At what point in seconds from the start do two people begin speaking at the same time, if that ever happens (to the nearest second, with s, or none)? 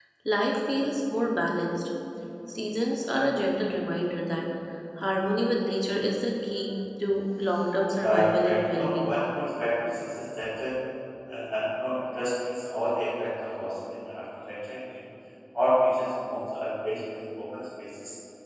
8 s